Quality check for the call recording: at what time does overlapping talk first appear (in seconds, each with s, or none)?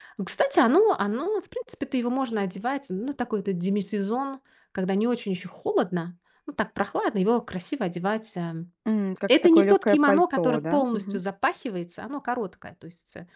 9.4 s